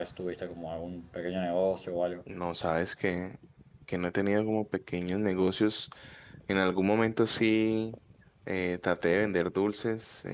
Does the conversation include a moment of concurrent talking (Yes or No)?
No